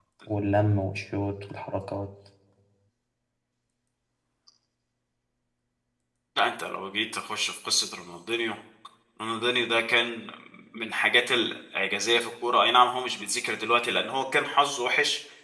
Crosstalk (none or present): none